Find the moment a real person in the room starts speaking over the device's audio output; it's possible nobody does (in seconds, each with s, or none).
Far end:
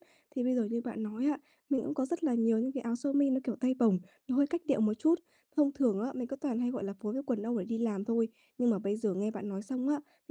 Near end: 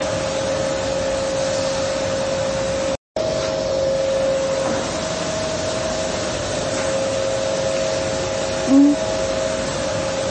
8.7 s